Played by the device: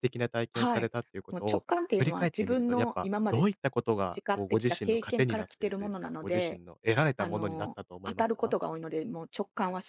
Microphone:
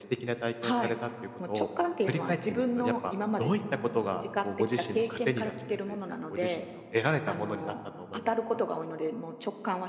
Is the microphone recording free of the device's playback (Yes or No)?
No